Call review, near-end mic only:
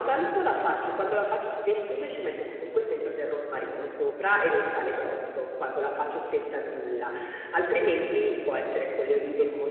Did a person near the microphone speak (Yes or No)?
No